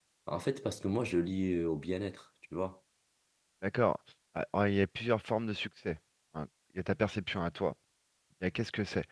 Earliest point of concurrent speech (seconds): none

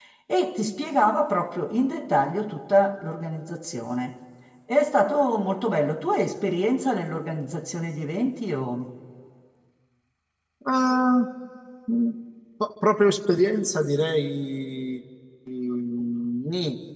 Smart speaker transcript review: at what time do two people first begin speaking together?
none

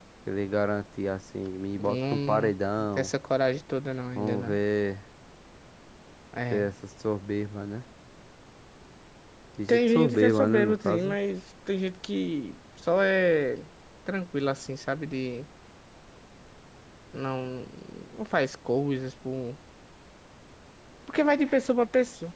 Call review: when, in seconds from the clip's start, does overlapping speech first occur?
1.8 s

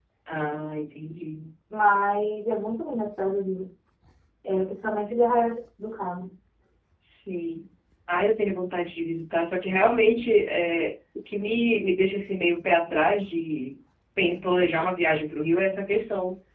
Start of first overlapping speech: none

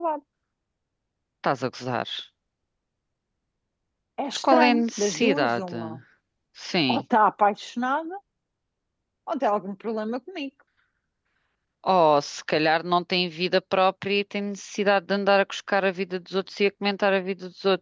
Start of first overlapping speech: 4.5 s

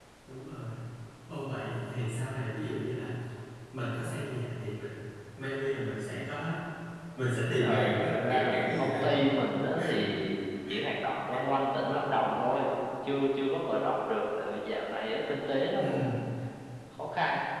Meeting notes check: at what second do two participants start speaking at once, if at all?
7.6 s

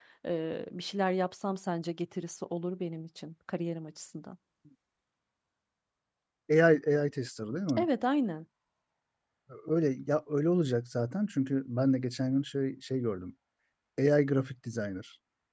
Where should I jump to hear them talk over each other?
none

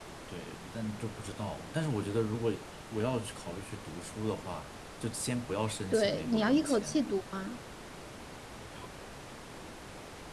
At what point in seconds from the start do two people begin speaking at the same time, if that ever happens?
5.9 s

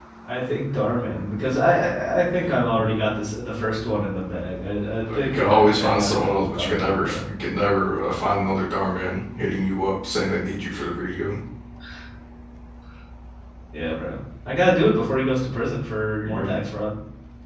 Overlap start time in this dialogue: 5.1 s

